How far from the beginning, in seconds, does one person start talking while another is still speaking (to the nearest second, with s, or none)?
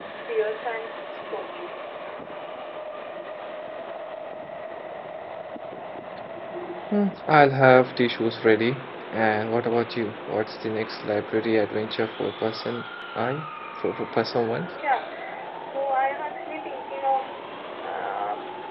none